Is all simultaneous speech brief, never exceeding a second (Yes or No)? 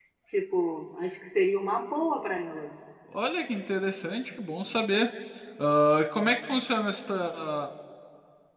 Yes